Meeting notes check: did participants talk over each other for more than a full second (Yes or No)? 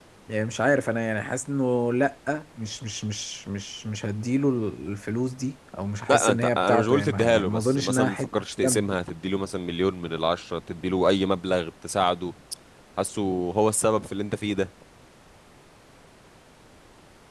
Yes